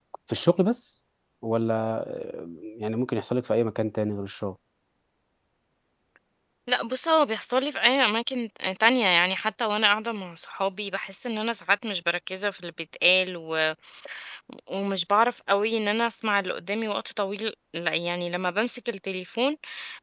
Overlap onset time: none

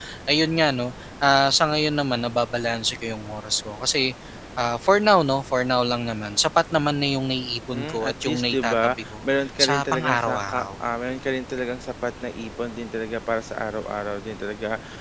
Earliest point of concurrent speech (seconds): 7.7 s

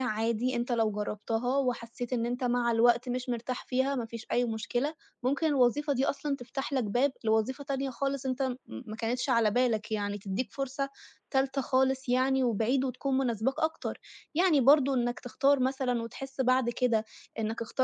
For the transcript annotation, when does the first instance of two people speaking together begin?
none

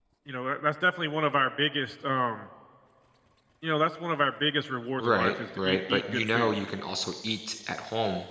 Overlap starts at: 5.0 s

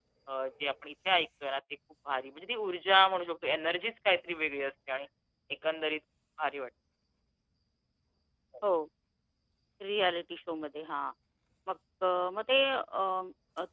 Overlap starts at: none

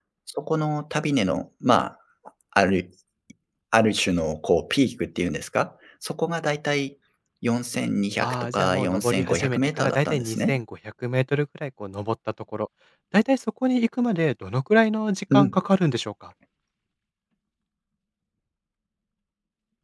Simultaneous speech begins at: 8.2 s

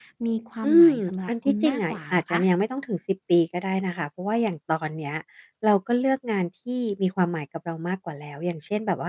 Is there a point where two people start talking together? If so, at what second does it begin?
0.7 s

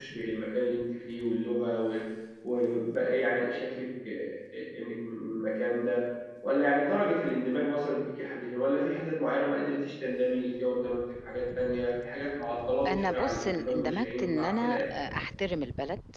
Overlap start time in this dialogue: 12.8 s

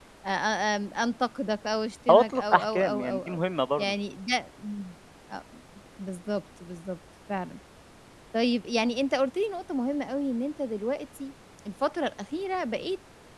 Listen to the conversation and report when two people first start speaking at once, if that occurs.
2.1 s

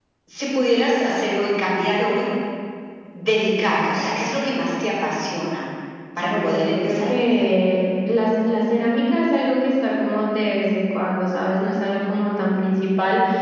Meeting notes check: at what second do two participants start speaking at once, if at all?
6.2 s

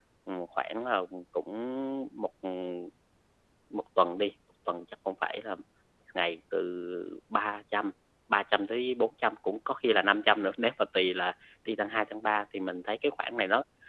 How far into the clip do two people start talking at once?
none

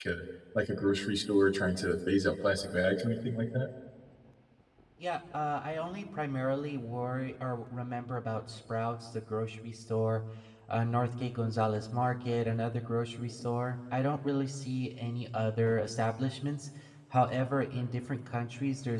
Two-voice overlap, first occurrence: none

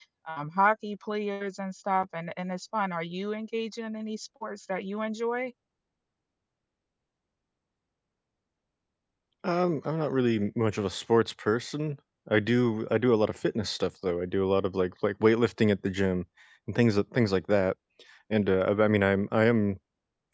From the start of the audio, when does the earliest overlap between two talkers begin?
none

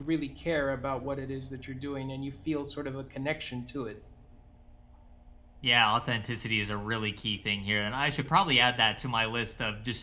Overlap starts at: none

